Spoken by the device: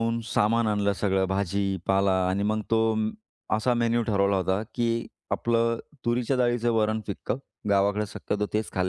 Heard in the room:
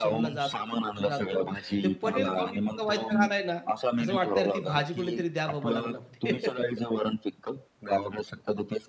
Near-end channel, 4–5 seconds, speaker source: both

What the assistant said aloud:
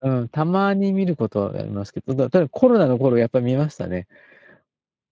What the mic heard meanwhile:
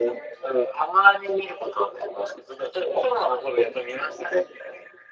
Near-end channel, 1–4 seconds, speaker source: echo only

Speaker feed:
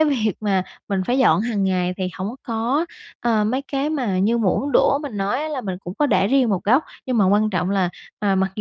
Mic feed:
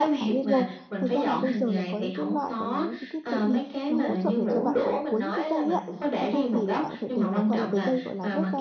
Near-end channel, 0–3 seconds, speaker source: both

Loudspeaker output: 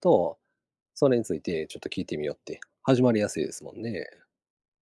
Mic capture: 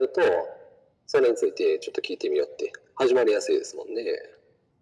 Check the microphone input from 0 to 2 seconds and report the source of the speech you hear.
echo only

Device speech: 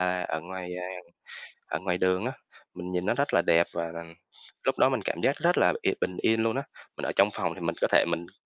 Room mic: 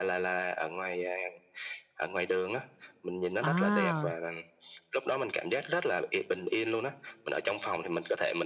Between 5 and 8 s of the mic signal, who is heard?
echo only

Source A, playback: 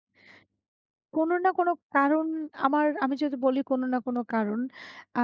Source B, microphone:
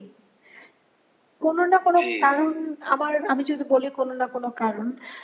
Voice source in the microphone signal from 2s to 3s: both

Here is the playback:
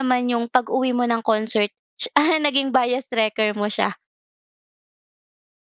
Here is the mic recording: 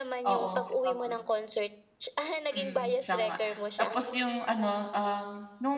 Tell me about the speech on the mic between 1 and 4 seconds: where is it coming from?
both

